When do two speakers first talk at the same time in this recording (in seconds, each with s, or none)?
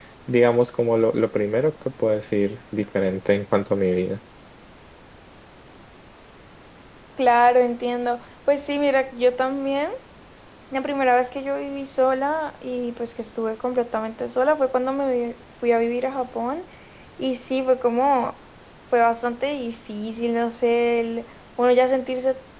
none